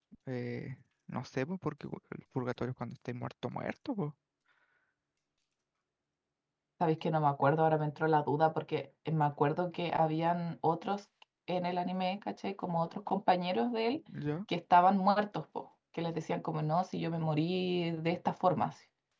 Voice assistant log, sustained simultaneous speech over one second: none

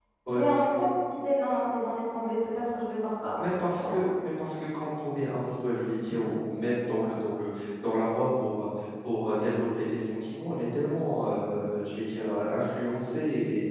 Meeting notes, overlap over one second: none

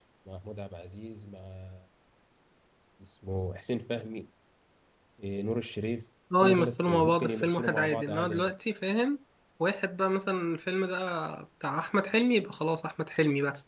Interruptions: present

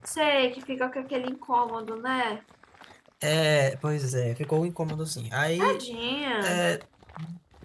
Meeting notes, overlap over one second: none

